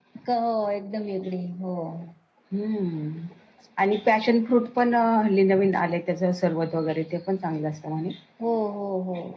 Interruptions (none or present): none